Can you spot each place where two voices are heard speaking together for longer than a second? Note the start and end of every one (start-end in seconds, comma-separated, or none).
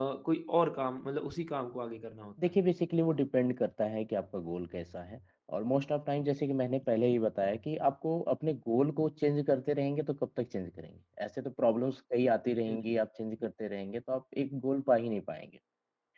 none